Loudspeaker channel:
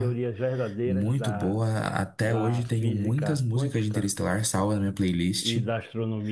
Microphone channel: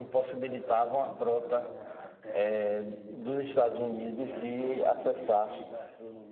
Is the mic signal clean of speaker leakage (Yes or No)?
No